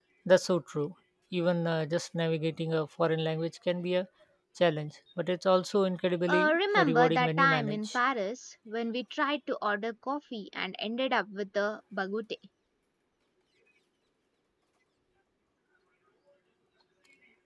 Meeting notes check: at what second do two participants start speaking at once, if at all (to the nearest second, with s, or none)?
6 s